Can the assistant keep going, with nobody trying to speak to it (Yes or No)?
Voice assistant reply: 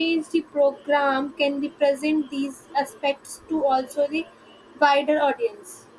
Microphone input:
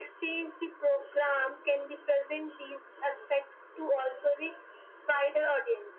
Yes